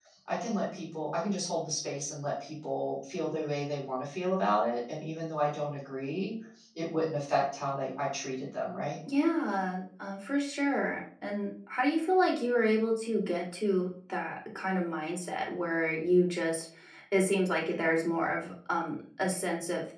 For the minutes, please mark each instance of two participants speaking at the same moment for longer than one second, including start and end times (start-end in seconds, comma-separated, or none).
none